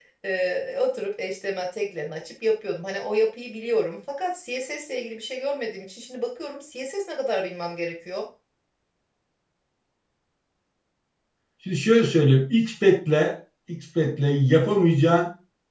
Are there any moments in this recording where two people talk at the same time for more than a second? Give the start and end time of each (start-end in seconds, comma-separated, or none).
none